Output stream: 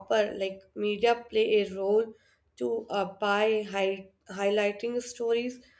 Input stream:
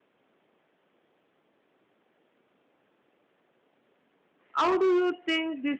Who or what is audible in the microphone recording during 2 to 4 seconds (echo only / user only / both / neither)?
neither